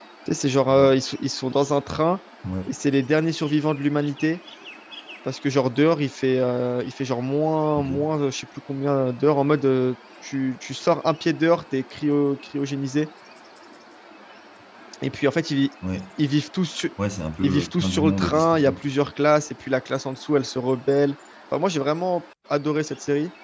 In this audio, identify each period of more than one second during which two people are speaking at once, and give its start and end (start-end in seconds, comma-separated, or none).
17.4-18.8